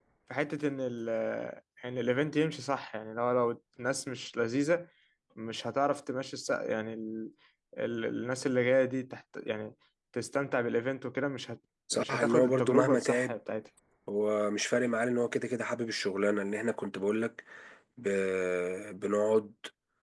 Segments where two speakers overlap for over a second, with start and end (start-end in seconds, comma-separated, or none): 11.9-13.3